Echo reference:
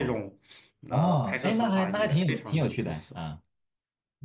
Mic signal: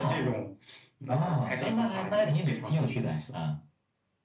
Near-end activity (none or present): none